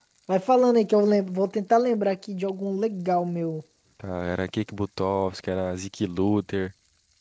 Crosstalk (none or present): none